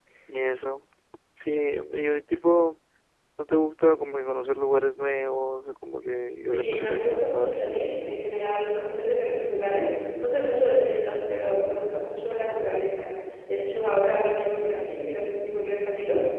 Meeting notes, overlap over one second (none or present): present